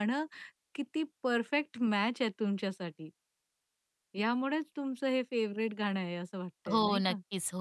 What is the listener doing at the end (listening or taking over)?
taking over